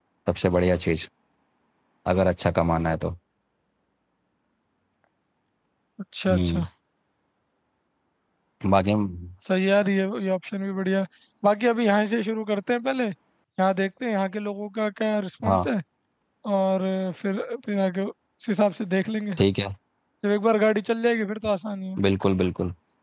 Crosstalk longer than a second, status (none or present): none